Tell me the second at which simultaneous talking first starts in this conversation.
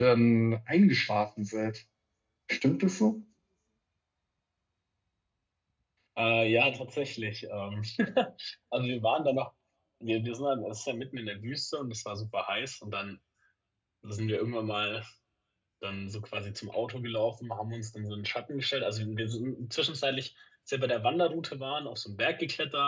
none

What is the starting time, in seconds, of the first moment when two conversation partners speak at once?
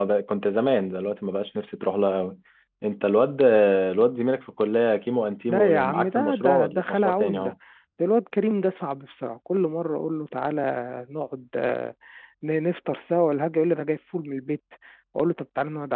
5.5 s

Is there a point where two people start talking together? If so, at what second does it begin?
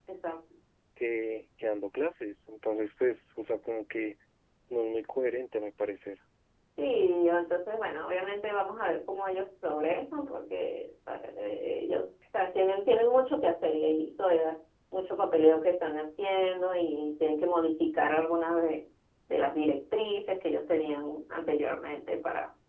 none

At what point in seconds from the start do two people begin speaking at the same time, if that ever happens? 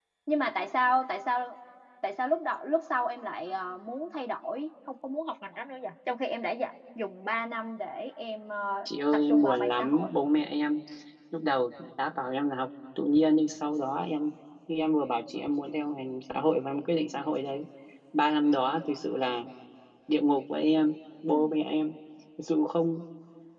8.8 s

